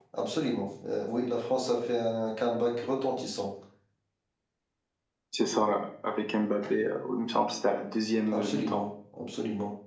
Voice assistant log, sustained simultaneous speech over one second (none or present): none